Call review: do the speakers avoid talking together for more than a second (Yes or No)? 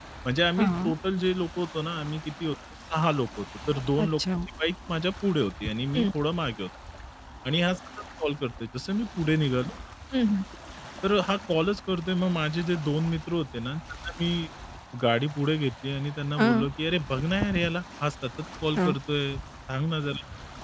Yes